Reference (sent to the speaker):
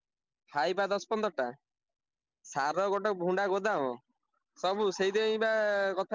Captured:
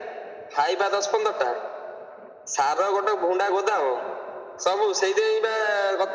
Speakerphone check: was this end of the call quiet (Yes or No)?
Yes